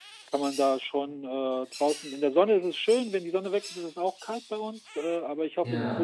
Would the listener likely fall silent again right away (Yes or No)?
Yes